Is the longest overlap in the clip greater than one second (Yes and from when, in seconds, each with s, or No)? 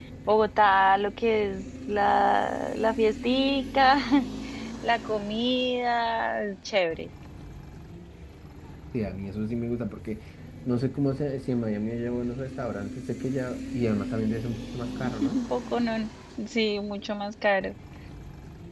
No